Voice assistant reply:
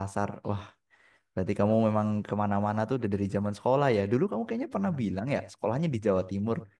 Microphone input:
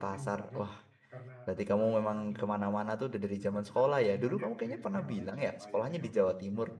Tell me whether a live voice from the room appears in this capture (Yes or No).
Yes